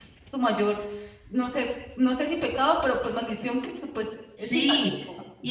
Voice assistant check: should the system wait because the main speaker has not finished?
No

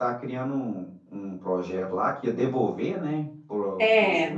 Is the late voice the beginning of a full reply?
Yes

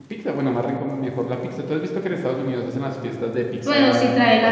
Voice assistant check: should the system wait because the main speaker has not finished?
No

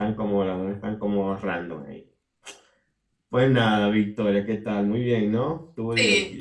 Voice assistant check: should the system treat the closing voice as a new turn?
Yes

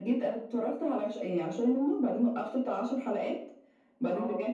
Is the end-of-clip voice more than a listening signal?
No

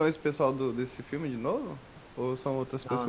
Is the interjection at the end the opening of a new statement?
Yes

